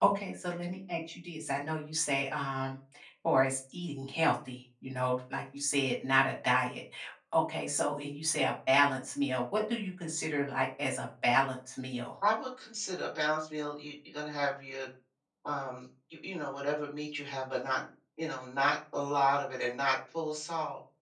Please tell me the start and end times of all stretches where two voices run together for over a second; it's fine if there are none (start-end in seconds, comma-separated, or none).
none